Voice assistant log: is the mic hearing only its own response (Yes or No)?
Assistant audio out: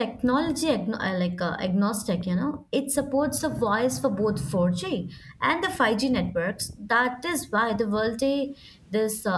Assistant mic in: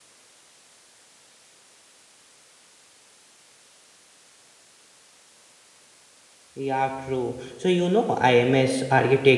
No